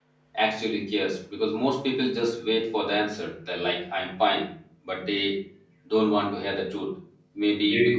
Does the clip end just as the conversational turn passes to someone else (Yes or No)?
No